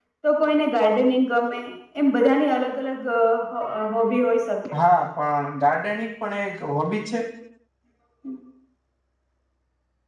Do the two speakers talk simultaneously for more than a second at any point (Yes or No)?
No